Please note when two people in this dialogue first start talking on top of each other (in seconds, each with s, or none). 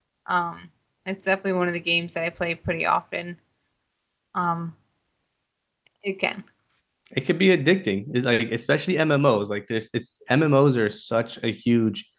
none